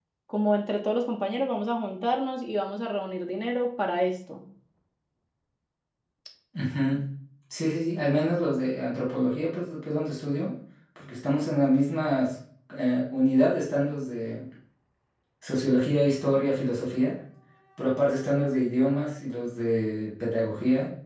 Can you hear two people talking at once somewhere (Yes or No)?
No